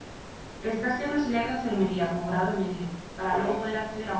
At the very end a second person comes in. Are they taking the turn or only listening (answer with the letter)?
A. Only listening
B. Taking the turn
A